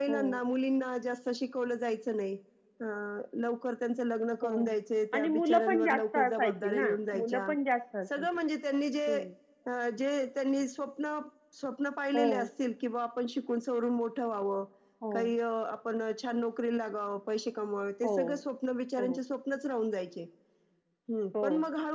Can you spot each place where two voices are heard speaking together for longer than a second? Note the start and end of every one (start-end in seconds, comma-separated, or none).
5.1-6.8